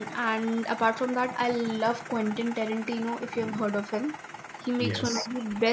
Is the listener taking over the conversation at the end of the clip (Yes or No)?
No